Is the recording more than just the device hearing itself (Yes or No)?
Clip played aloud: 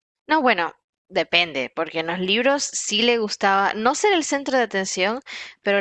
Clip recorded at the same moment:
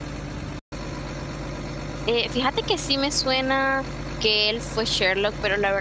Yes